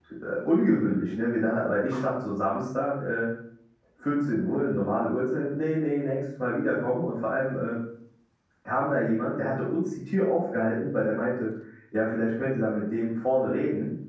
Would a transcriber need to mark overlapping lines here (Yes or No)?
No